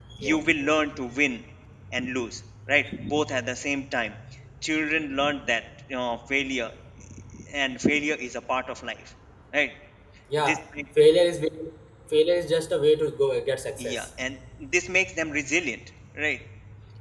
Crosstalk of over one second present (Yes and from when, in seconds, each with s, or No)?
No